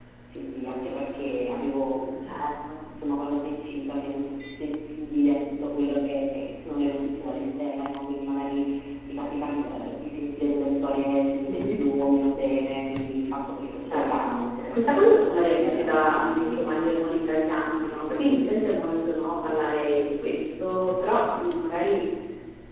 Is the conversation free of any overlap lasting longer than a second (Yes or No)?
No